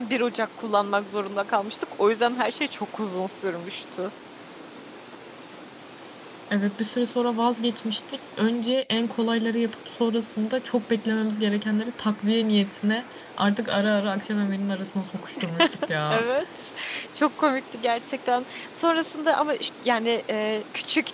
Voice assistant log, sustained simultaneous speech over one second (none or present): none